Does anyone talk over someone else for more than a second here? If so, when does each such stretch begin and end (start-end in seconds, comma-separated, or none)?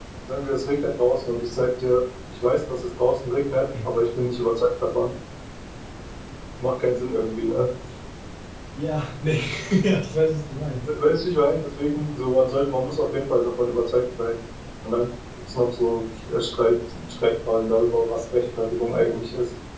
none